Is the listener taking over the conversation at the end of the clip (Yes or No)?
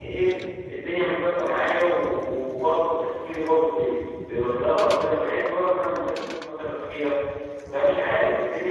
No